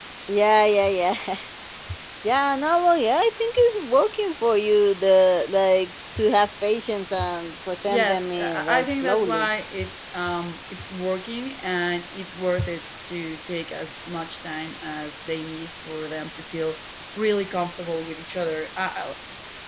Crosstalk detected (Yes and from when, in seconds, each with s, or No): Yes, from 7.9 s